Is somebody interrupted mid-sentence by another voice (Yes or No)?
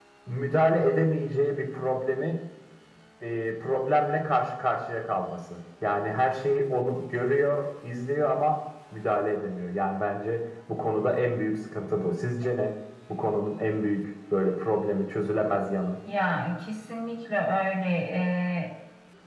No